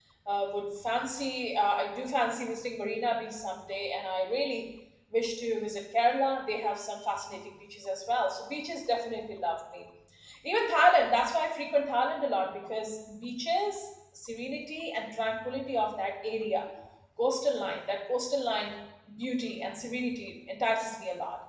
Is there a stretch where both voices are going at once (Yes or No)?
No